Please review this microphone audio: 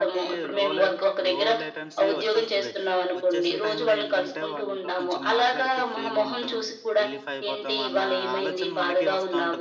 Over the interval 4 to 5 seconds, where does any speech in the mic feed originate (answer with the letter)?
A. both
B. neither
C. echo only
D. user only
A